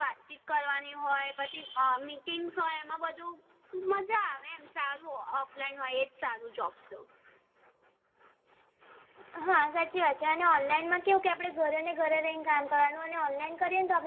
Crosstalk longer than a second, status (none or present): none